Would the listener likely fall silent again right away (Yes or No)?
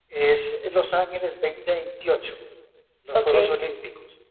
Yes